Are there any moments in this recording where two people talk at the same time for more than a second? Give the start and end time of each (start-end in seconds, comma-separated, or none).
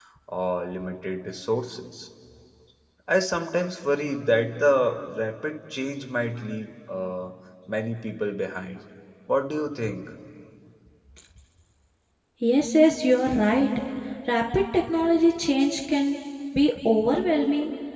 none